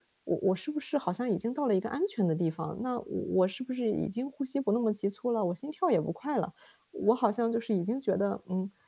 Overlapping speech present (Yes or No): No